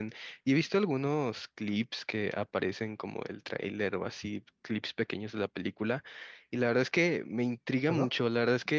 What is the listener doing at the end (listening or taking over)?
listening